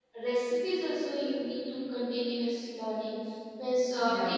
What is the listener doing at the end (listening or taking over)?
listening